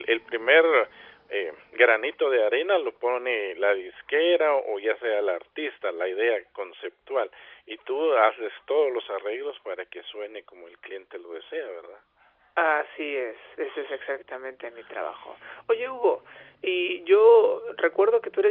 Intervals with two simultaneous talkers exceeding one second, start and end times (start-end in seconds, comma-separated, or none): none